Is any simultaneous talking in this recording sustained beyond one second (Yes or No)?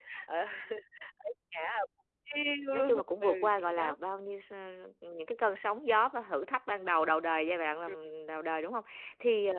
Yes